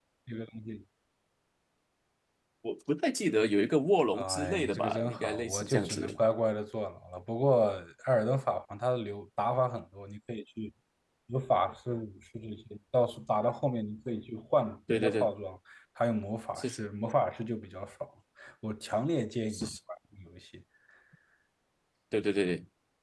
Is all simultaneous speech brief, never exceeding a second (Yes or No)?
No